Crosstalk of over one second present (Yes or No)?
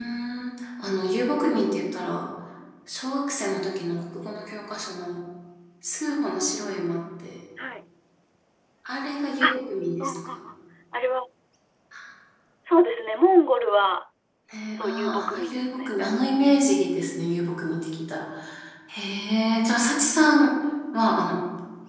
Yes